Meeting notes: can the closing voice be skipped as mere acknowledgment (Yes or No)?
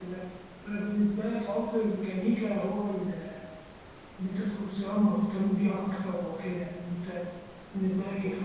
Yes